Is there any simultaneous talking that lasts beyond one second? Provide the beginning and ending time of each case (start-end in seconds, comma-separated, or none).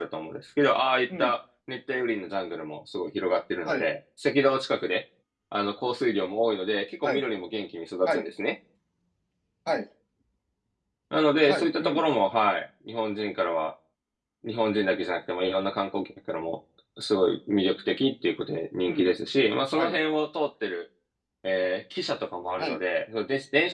none